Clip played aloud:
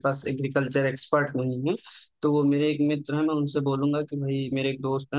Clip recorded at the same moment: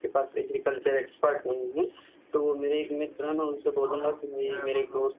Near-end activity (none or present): present